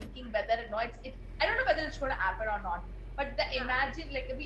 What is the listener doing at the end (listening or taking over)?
listening